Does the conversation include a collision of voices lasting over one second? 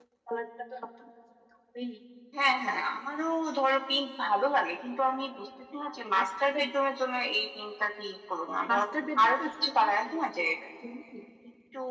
Yes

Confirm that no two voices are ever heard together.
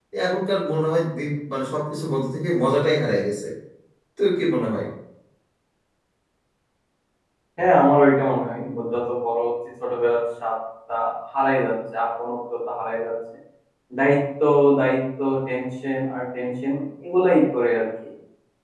Yes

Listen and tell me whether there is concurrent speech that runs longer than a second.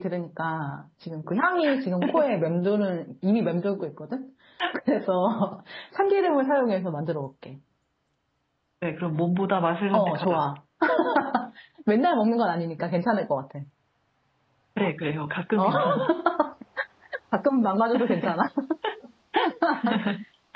No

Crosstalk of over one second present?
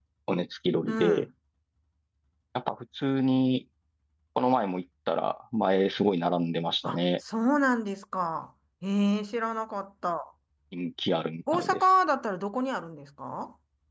No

